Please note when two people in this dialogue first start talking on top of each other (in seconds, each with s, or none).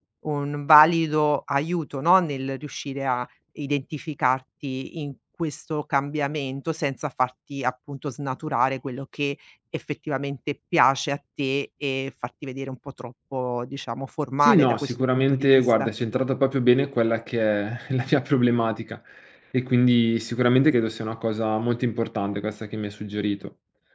14.4 s